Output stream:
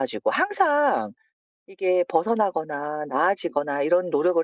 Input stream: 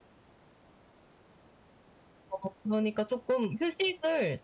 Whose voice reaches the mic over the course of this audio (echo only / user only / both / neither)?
user only